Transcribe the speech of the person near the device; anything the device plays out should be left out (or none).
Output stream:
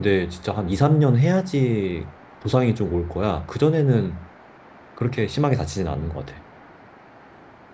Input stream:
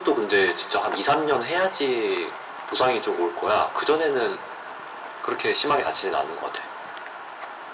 none